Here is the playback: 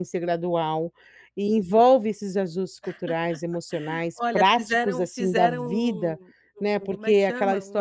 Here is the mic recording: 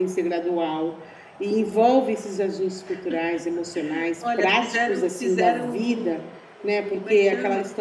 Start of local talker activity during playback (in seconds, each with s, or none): none